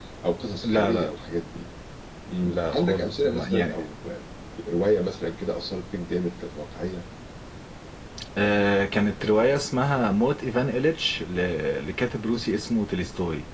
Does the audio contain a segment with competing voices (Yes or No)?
Yes